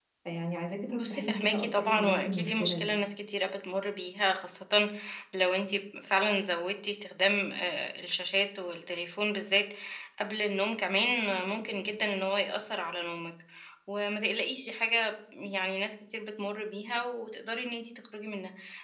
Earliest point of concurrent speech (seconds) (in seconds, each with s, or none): 1.0 s